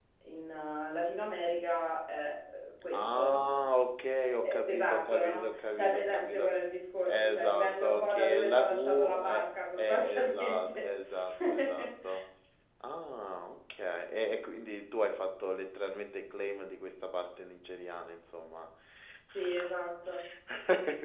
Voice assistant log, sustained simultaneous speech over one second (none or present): present